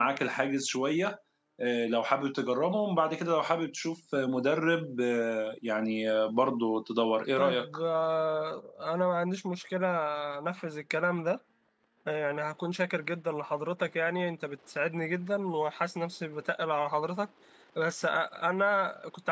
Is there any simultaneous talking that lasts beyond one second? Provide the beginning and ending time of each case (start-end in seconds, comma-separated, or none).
none